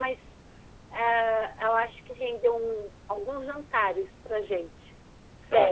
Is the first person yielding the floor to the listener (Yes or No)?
Yes